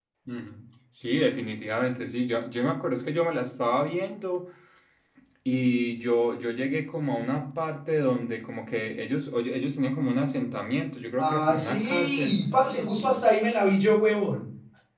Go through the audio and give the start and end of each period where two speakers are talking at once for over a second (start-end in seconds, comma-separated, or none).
11.2-12.4